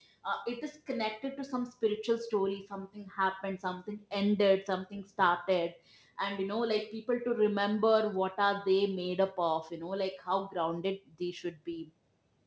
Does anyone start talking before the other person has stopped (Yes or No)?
No